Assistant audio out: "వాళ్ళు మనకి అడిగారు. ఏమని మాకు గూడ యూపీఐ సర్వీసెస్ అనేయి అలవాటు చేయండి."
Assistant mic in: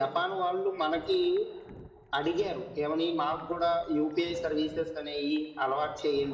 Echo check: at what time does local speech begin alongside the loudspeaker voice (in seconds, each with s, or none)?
none